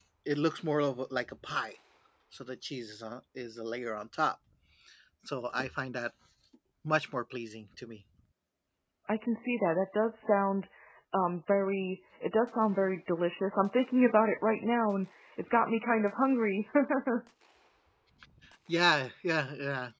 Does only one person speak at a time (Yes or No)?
Yes